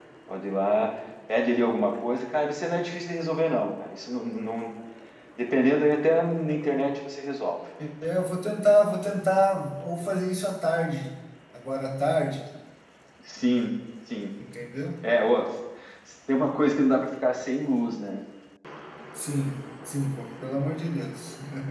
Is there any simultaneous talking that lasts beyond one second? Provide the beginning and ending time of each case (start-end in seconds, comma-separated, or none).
none